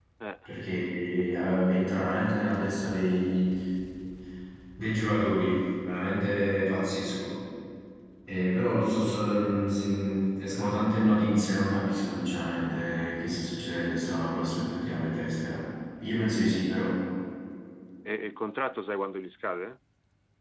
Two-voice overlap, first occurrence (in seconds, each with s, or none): none